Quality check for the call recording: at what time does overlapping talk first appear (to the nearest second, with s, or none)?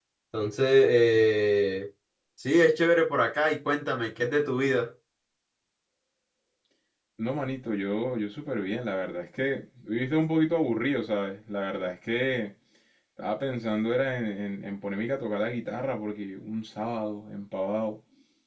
none